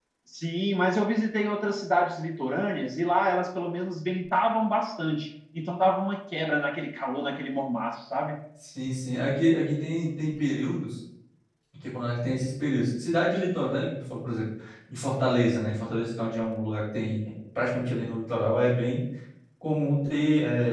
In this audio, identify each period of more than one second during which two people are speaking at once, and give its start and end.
none

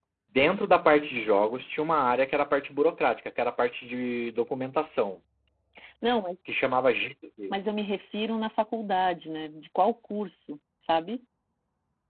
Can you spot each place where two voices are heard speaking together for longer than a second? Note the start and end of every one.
none

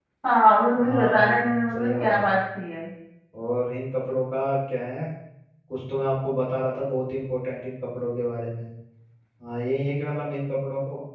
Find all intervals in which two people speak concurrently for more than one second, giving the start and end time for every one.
0.8-2.3

